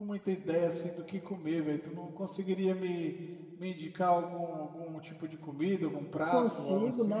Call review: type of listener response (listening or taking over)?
taking over